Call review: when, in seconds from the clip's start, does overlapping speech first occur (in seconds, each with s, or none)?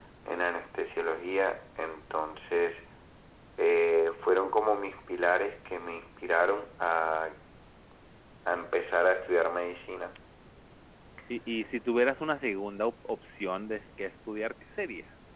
none